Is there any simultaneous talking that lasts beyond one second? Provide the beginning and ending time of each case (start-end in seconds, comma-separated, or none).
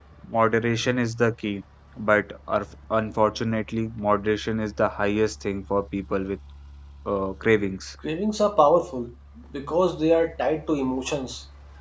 none